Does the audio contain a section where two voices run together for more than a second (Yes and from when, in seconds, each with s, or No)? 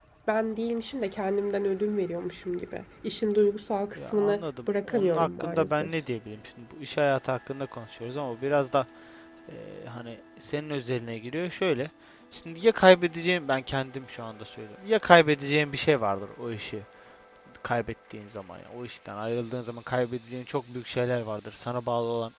Yes, from 4.0 s